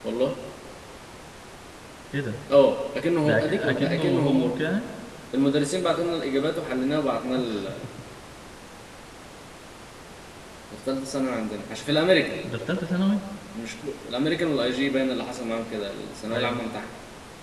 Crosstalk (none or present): present